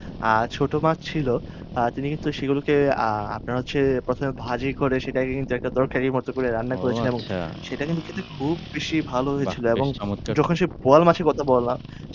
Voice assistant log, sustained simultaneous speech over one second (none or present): none